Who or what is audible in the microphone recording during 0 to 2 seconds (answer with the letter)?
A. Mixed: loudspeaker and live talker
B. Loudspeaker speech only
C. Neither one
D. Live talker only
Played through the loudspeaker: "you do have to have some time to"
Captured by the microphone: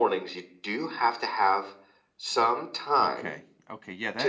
B